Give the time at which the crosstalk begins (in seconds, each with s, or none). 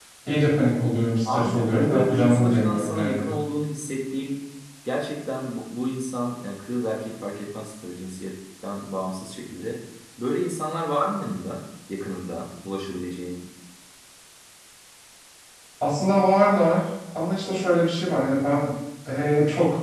1.2 s